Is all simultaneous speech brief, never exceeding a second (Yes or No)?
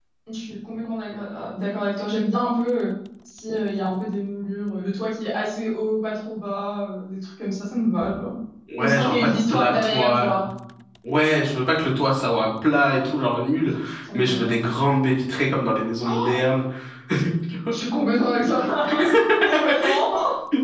No